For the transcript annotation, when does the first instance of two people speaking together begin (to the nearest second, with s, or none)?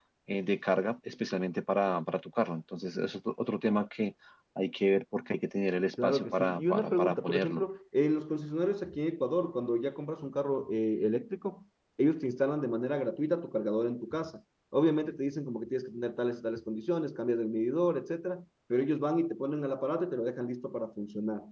6 s